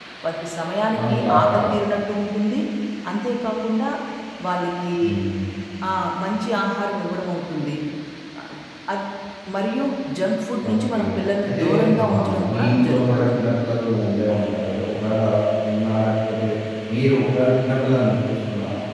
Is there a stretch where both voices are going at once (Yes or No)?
Yes